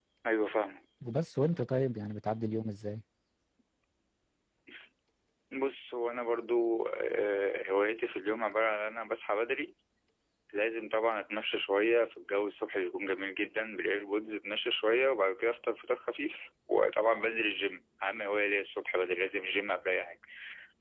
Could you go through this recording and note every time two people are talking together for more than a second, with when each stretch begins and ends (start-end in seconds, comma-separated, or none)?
none